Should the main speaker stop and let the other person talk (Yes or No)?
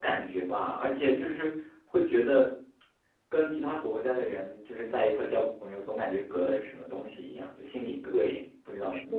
Yes